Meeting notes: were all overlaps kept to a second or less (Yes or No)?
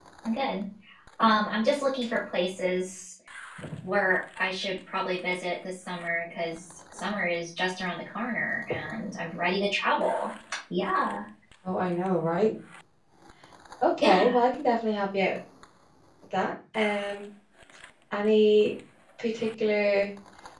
Yes